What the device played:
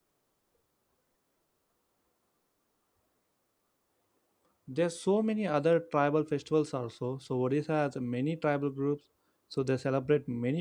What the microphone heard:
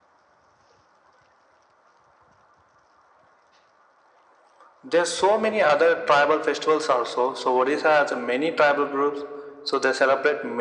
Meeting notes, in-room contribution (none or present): none